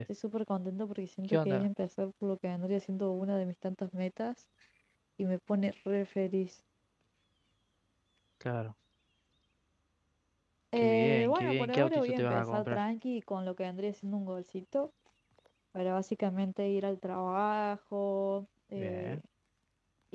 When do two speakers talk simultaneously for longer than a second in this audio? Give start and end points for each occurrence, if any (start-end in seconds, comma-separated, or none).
10.8-12.8